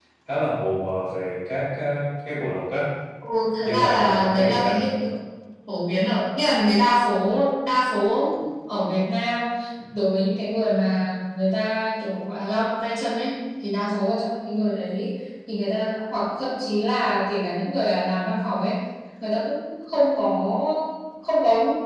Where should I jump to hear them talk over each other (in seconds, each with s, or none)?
3.6 s